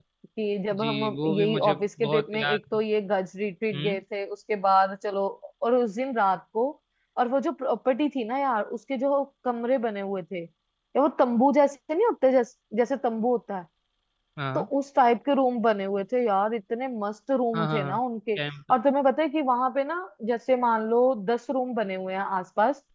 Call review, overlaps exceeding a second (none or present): present